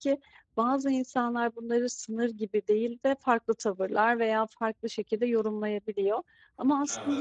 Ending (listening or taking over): listening